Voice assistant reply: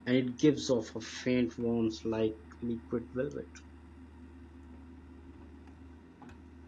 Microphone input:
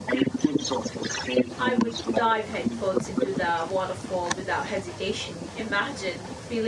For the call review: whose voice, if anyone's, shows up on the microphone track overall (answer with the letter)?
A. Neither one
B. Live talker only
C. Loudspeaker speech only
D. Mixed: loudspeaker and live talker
D